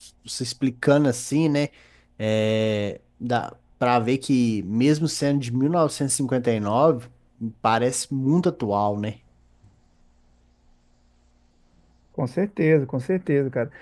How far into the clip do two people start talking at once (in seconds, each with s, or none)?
none